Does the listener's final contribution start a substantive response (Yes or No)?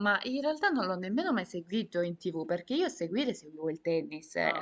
No